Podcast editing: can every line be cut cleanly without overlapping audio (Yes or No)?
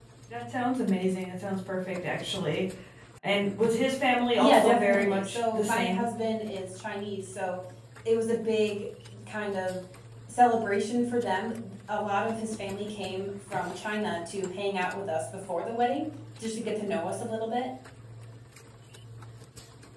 No